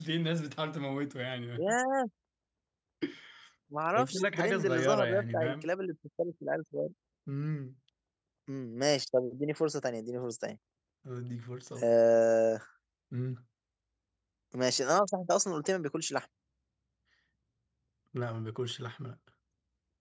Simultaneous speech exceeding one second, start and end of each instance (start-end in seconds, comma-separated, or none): 4.0-5.7